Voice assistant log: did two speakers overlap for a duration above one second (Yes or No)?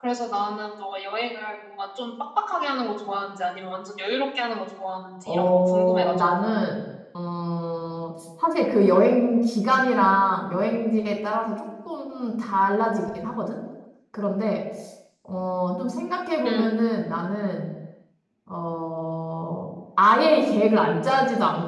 Yes